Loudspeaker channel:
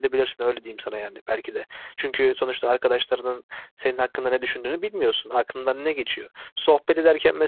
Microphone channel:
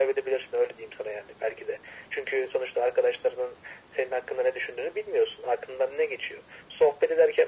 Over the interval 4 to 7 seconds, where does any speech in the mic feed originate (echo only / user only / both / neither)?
echo only